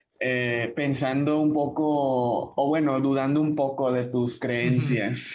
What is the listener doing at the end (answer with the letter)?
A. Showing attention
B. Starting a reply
B